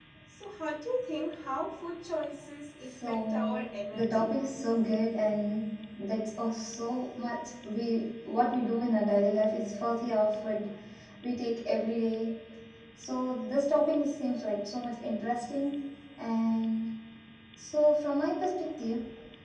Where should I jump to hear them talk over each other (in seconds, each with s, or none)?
2.8 s